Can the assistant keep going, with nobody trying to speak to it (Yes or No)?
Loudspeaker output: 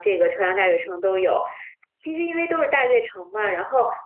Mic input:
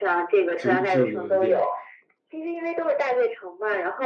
No